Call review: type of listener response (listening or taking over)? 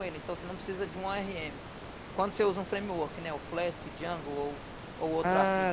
taking over